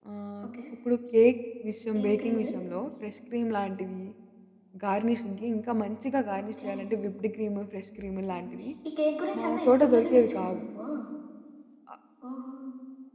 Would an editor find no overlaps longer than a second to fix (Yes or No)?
No